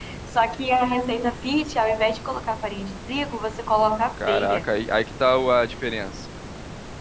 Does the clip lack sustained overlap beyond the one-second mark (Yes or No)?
Yes